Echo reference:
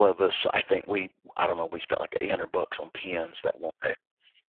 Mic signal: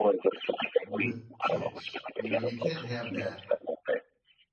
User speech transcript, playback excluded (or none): with kids, you know? You can't have that